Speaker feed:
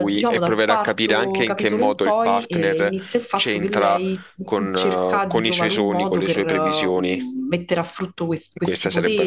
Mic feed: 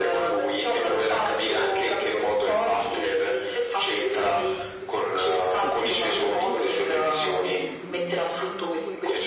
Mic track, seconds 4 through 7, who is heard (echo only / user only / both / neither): both